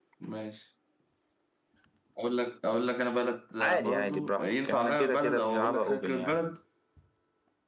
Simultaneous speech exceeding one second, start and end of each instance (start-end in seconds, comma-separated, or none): 3.6-6.4